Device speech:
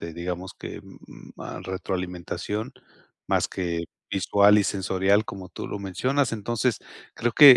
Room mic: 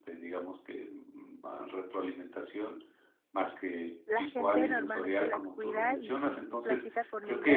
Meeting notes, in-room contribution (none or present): present